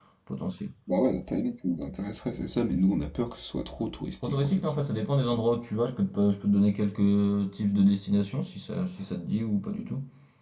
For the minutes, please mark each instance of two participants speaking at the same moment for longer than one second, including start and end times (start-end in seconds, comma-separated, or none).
none